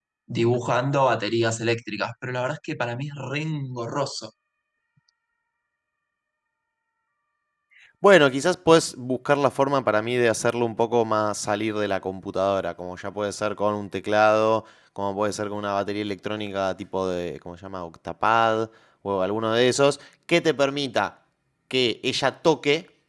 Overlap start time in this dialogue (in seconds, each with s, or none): none